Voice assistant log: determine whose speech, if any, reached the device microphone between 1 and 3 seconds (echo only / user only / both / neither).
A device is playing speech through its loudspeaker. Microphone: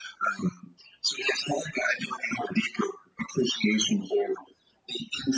echo only